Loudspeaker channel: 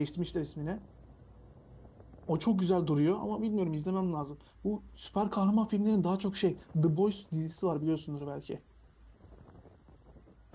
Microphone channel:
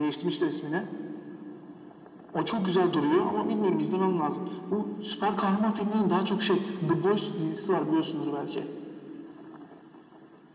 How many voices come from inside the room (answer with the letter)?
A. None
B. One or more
A